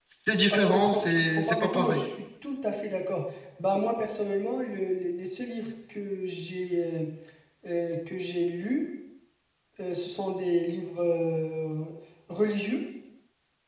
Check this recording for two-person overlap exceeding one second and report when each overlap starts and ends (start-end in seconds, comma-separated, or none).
0.5-2.0